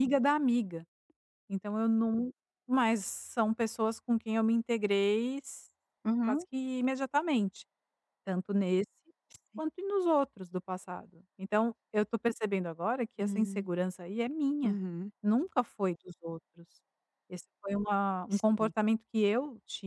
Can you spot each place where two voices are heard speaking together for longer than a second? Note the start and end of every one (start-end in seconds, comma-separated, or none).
none